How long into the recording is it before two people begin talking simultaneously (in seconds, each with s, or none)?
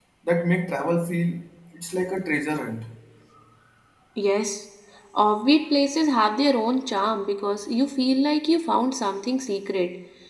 none